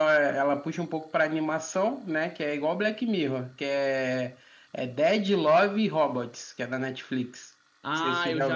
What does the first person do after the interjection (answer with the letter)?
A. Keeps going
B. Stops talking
B